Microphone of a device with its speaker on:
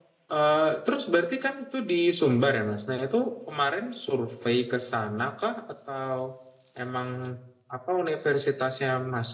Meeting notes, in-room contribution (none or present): none